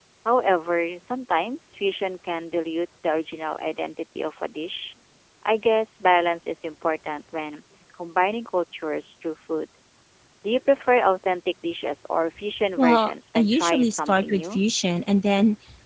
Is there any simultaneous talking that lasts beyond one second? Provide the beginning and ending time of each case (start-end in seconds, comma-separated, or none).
12.8-14.6